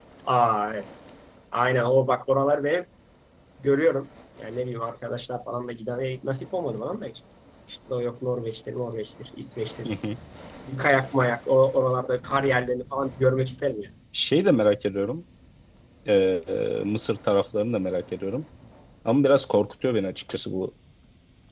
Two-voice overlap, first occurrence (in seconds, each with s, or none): none